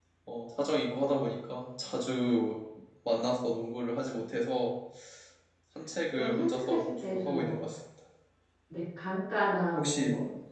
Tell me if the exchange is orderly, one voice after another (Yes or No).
No